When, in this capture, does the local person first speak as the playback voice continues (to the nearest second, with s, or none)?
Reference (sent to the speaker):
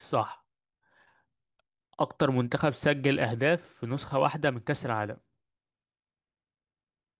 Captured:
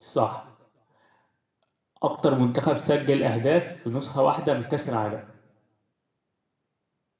none